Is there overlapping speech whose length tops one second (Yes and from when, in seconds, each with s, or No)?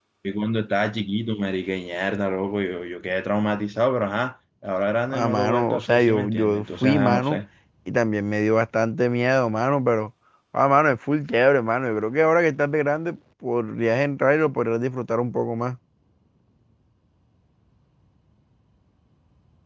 Yes, from 5.1 s